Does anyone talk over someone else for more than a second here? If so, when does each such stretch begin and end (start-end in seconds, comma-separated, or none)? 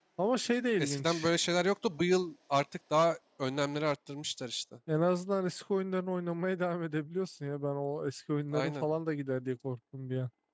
none